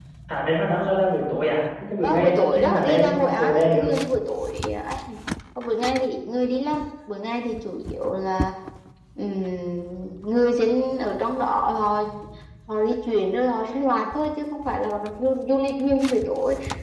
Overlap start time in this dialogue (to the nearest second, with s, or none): 2 s